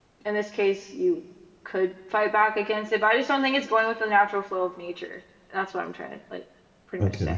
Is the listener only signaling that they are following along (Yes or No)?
No